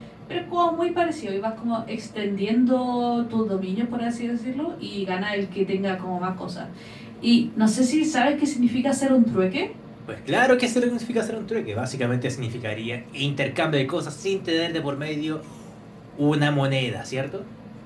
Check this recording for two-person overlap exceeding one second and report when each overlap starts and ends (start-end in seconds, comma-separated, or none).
none